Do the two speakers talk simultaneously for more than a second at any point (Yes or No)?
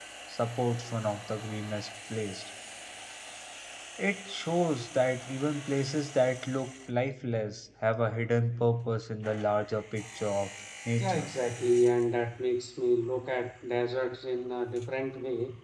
No